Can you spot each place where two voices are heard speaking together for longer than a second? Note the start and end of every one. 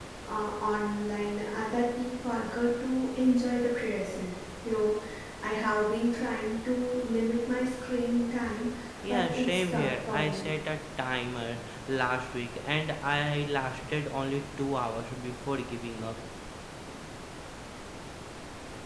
9.1-10.4

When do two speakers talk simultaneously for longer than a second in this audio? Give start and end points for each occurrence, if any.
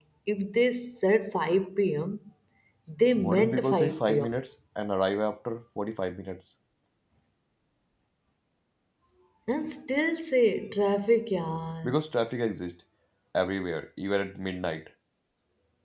3.2-4.4

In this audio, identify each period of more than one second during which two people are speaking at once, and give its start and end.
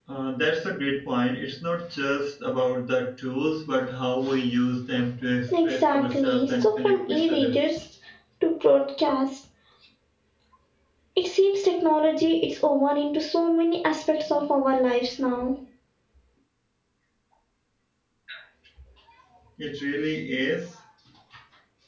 5.6-7.6

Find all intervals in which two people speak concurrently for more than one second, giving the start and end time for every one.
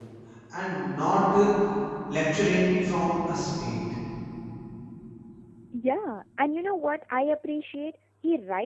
none

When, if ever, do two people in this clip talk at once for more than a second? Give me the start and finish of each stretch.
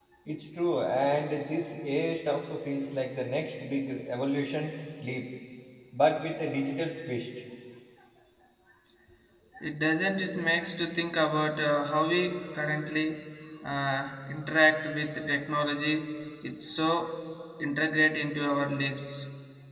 none

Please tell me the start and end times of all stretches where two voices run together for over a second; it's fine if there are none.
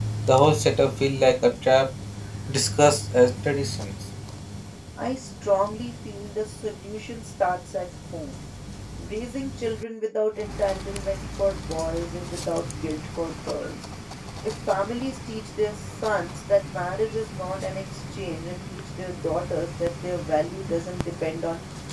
none

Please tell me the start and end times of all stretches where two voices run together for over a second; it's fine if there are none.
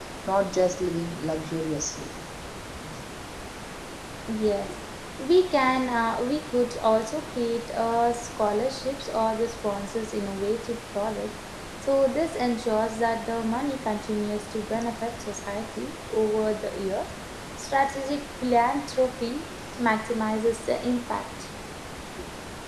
none

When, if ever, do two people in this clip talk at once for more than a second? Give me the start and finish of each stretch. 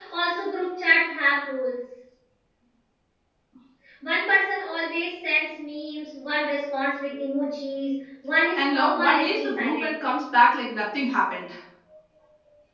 8.6-9.9

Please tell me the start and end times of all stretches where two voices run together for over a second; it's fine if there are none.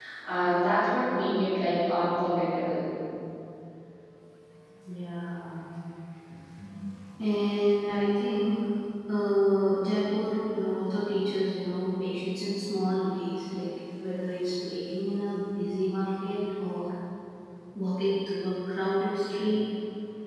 none

